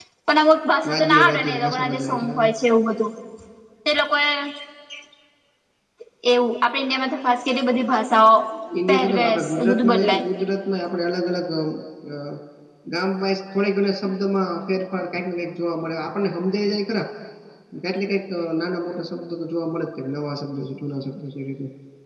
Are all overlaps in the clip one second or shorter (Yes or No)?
No